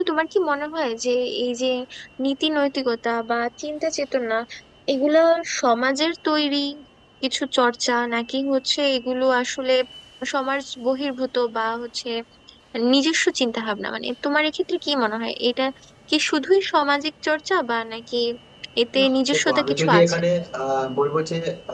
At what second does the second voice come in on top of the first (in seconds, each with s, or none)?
19.0 s